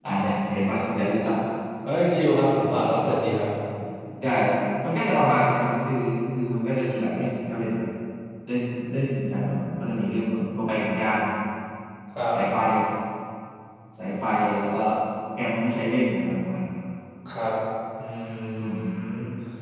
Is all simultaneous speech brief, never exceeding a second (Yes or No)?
Yes